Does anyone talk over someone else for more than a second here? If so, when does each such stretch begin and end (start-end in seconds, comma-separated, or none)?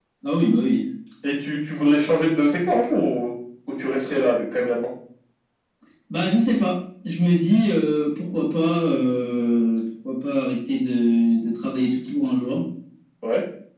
none